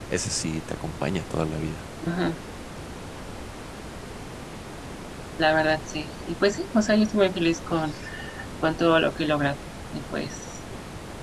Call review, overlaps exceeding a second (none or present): none